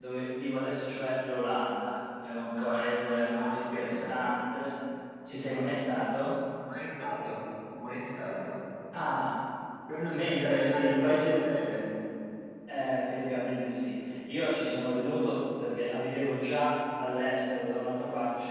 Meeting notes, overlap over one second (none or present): present